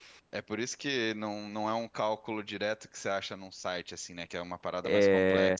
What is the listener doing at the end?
taking over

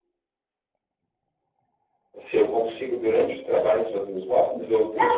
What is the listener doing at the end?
taking over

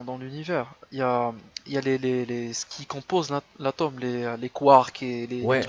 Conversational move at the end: taking over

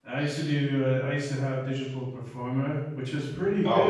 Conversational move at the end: listening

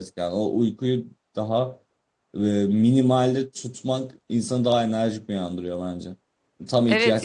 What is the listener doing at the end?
taking over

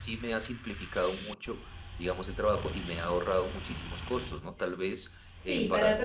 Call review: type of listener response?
taking over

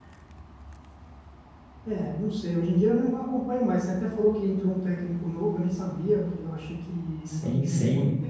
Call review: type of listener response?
taking over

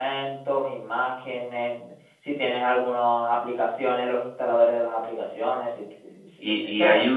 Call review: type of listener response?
taking over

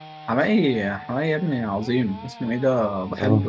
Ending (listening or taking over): listening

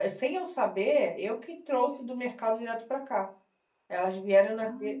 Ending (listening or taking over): listening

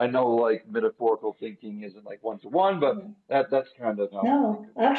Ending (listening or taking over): taking over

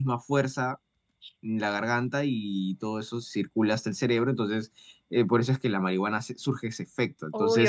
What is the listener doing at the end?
taking over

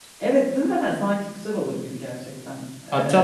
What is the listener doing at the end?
taking over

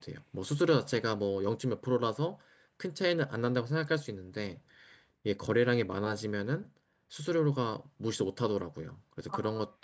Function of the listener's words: listening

